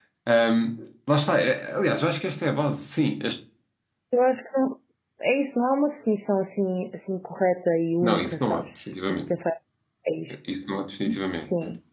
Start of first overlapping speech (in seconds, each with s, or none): 8.0 s